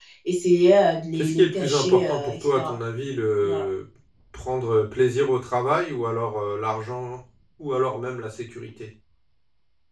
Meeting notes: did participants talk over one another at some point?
Yes, from 1.1 s

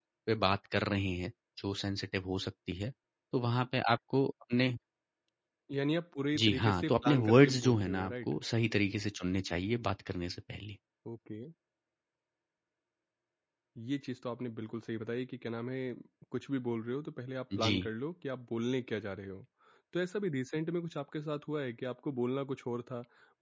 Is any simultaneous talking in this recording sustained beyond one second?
Yes, from 6.4 s

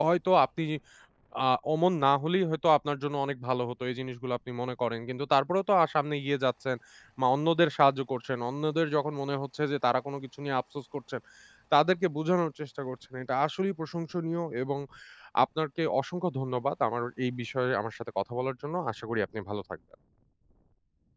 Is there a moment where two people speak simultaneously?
No

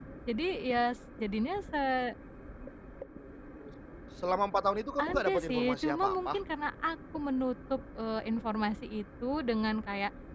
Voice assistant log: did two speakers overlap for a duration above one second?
Yes, from 5.0 s

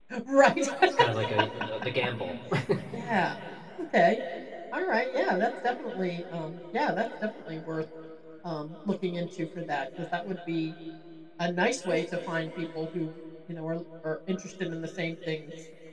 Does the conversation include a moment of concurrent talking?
No

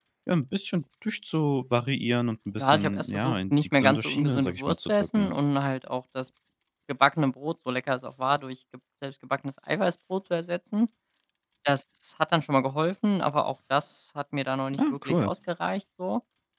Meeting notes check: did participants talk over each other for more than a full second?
Yes, from 2.6 s

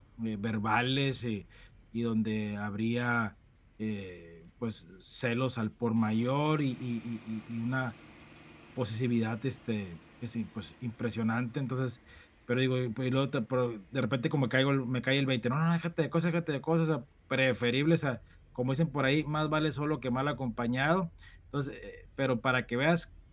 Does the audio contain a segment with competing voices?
No

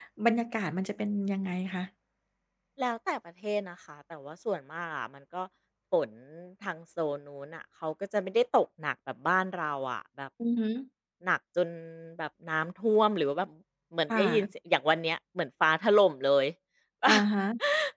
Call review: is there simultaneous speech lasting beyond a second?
No

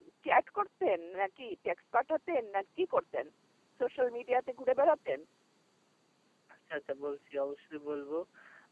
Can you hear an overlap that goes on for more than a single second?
No

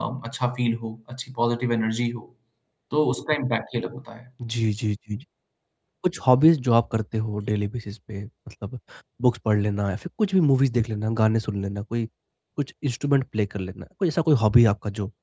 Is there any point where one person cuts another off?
No

